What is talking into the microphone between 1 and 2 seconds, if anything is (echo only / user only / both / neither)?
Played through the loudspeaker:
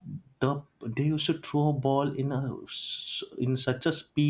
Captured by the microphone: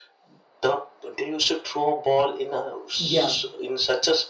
echo only